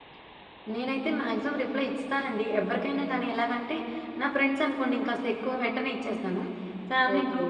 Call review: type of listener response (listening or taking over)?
listening